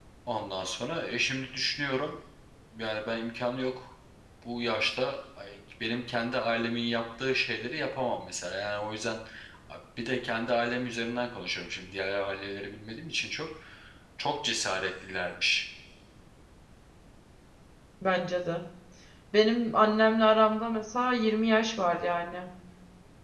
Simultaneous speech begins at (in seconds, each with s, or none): none